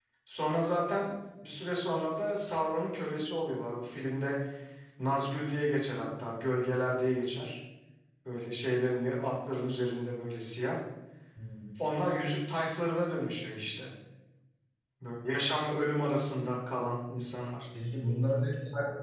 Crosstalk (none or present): none